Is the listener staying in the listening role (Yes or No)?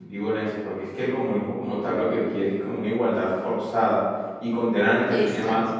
Yes